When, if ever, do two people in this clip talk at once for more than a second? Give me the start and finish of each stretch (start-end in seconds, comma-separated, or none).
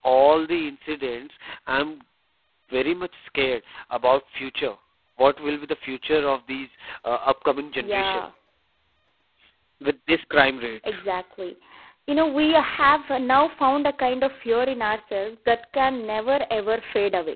none